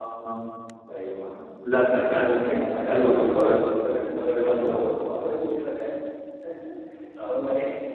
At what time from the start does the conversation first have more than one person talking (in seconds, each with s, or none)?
1.9 s